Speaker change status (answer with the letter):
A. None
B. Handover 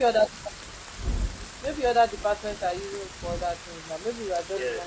B